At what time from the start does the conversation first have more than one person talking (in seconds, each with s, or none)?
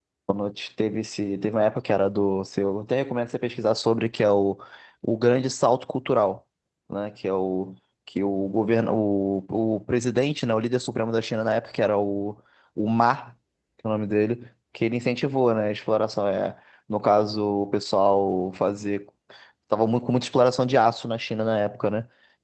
none